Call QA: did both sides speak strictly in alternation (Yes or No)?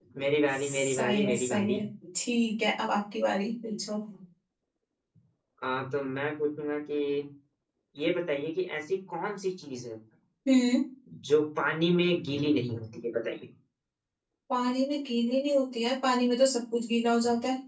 No